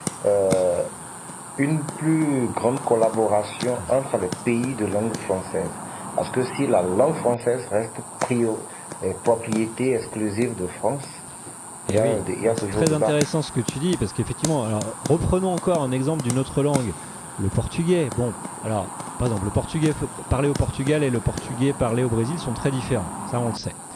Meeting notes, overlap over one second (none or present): present